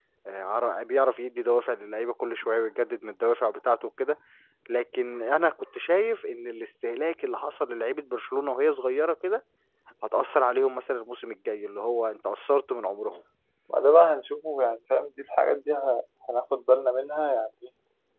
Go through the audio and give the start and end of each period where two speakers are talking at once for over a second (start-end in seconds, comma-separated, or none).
none